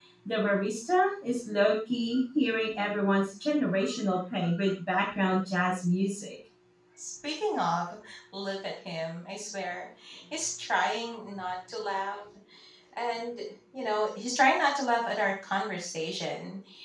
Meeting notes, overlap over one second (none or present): none